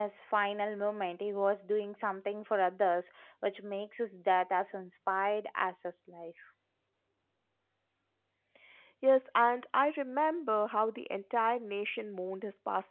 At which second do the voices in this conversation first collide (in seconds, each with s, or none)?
none